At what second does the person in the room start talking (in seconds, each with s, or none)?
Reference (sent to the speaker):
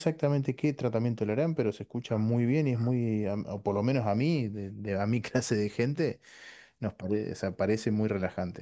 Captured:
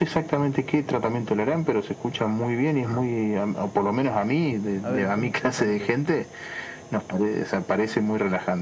4.8 s